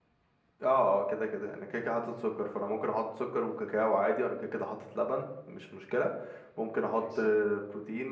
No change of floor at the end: Yes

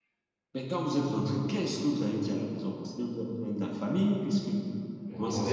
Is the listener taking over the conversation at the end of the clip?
Yes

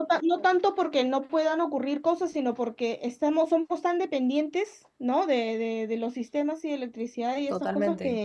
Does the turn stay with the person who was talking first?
Yes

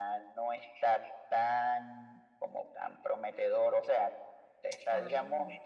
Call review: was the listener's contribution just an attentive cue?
Yes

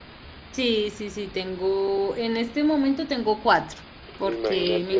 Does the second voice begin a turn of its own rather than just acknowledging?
Yes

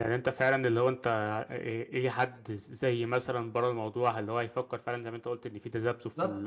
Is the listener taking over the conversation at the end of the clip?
No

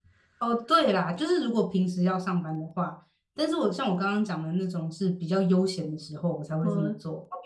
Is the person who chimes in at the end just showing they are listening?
Yes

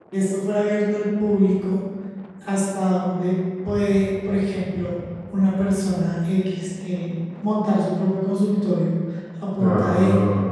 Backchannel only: Yes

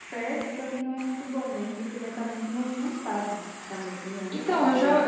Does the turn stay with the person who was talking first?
No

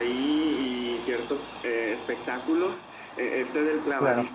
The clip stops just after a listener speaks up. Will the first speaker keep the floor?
Yes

